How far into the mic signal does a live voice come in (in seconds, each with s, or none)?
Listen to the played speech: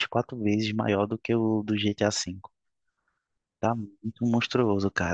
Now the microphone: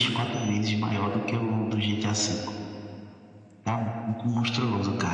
none